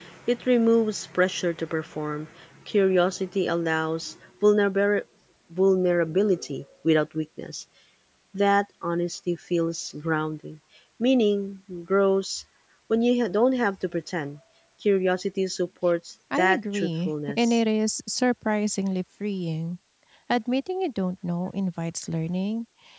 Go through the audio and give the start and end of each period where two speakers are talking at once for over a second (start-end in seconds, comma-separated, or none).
16.4-17.6